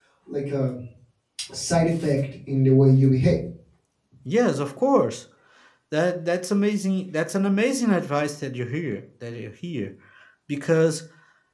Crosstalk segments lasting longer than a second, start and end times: none

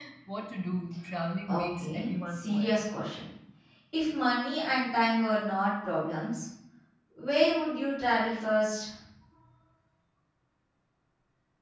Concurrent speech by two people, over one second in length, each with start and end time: 1.5-2.8

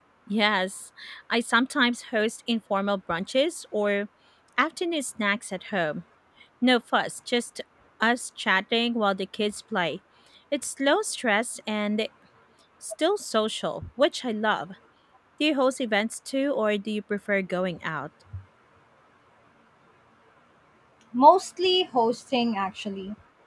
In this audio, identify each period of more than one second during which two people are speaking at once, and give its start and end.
none

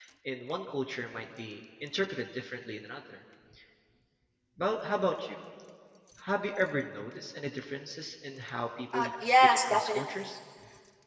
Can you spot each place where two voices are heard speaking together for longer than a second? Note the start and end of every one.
8.9-10.3

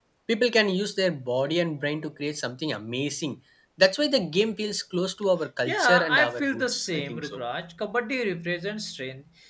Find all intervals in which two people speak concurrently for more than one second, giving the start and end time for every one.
5.7-7.4

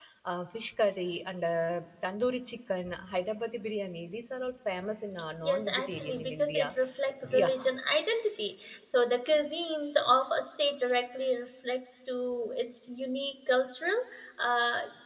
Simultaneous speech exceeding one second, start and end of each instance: 5.4-6.7

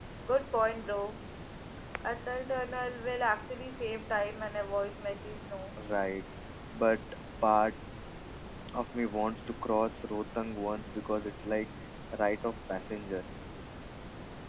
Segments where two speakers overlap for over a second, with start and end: none

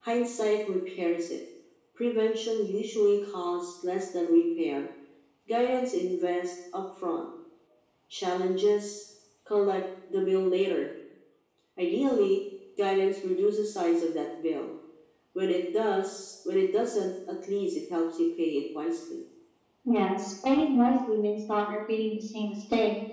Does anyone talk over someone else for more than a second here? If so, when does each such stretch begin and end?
none

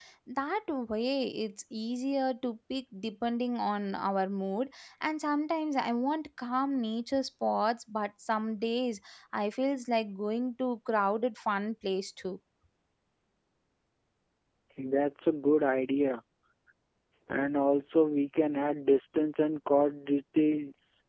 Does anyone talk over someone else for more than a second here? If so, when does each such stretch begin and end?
none

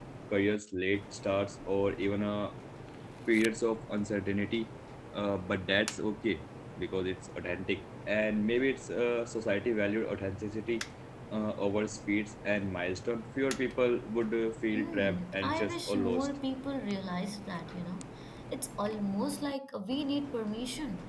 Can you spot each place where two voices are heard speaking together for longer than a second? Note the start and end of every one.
14.7-16.3

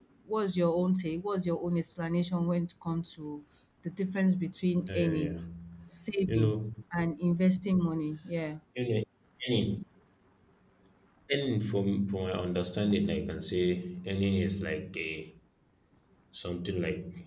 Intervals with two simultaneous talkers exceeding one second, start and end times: none

